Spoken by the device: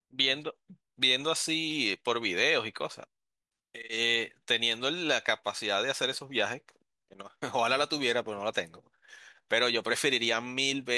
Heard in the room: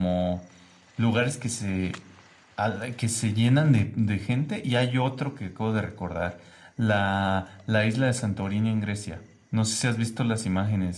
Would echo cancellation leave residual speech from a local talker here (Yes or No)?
Yes